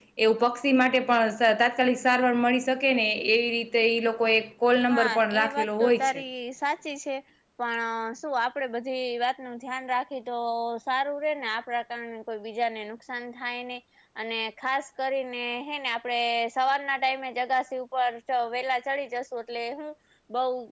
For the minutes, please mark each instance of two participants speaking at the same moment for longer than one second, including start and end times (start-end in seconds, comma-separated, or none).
4.9-6.2